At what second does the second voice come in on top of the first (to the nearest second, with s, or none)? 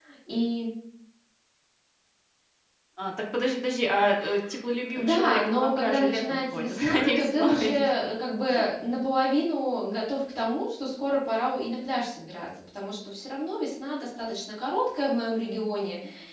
5 s